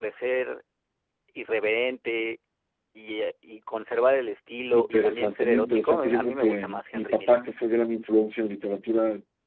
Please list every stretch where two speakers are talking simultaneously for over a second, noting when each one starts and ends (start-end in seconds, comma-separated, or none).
4.7-7.4